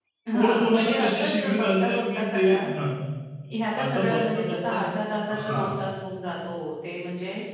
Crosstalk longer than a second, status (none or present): present